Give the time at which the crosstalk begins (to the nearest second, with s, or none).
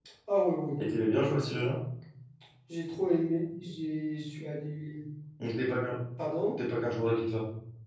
none